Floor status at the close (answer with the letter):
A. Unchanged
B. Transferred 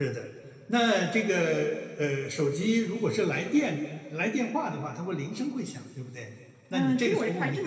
B